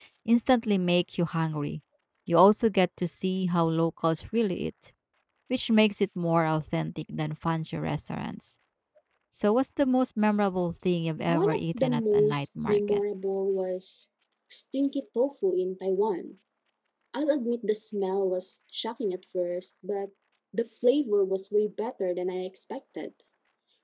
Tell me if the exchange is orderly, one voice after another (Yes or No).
No